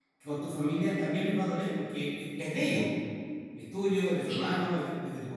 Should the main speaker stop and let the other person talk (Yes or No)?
No